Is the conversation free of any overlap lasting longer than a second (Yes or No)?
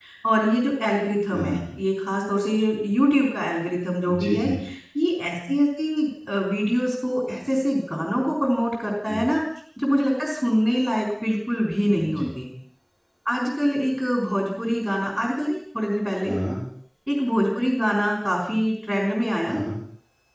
Yes